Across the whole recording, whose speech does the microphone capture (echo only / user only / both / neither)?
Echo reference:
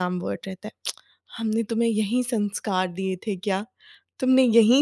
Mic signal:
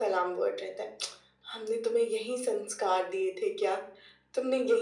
echo only